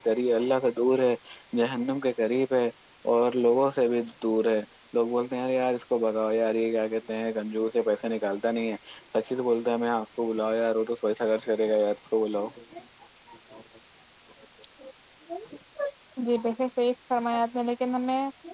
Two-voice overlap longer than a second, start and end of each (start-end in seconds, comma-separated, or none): none